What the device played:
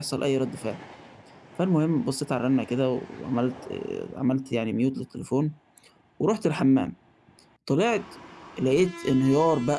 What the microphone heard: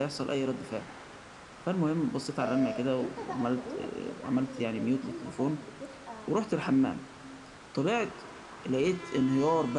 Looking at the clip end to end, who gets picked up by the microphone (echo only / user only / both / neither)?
both